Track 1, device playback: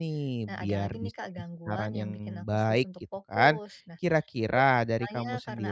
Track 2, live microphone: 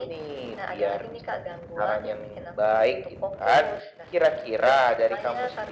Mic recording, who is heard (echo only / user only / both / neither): echo only